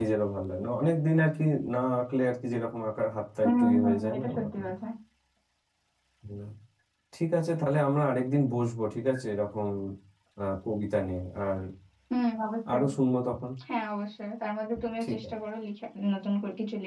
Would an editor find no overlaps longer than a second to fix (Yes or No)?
No